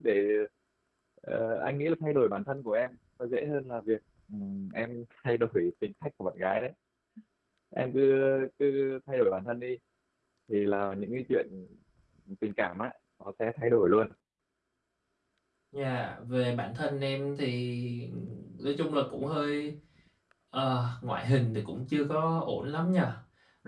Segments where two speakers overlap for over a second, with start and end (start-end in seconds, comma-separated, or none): none